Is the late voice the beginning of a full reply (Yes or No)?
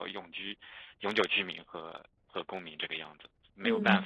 Yes